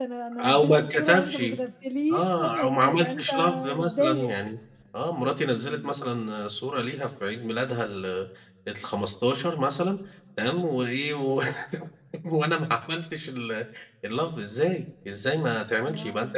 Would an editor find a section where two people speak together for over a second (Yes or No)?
Yes